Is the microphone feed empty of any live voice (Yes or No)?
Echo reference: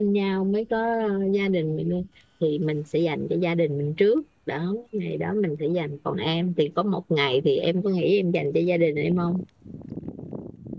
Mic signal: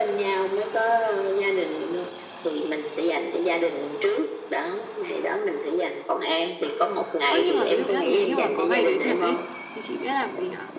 No